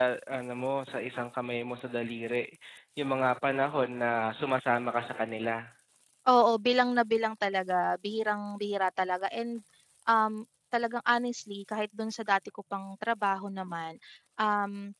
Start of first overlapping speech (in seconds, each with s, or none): none